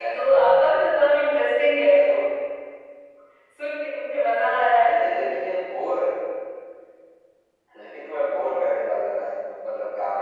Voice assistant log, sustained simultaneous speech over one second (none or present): none